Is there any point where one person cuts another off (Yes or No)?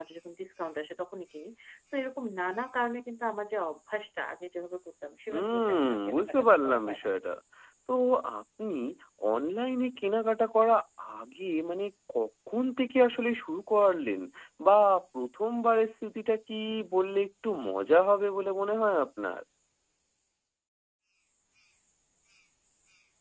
Yes